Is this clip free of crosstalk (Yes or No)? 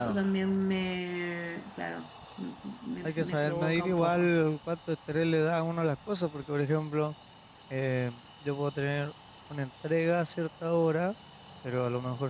No